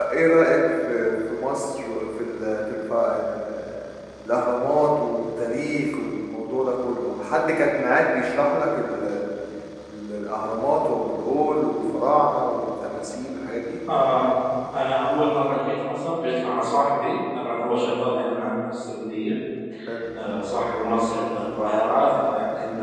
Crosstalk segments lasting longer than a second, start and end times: none

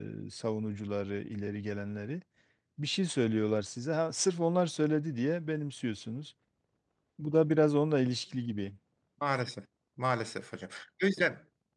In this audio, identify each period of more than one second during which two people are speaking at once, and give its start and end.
none

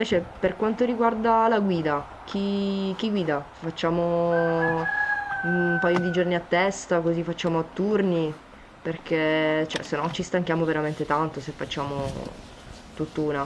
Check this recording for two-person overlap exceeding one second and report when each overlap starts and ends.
none

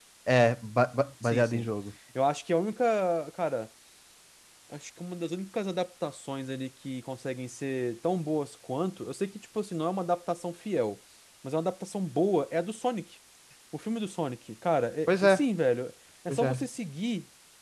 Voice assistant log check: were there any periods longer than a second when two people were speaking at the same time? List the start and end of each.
none

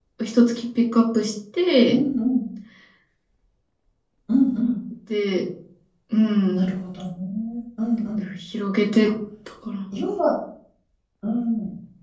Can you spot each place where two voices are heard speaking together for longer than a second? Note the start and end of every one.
none

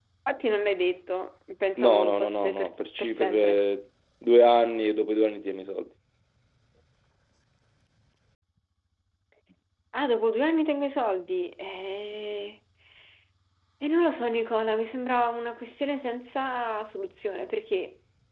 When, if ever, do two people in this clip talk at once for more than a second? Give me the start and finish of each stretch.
1.8-3.6

